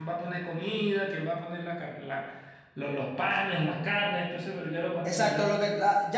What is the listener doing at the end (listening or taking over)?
taking over